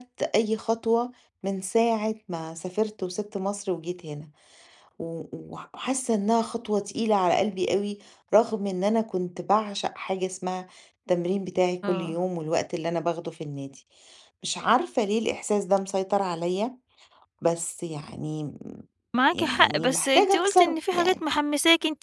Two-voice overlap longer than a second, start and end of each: 19.3-21.1

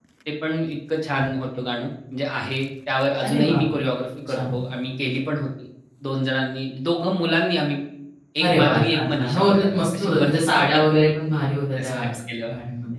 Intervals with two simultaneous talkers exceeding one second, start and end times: 8.4-10.3

